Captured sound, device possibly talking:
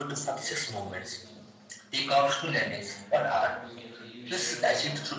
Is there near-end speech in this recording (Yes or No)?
Yes